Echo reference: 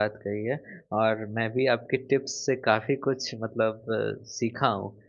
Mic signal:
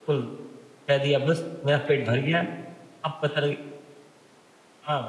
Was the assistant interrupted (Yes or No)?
Yes